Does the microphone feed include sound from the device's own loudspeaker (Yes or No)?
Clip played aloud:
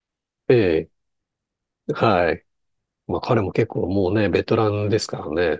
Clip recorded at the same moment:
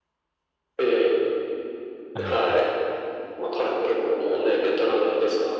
Yes